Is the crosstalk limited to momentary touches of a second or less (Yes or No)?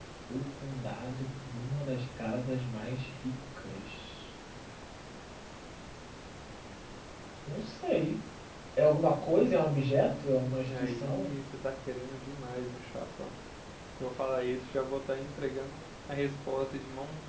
No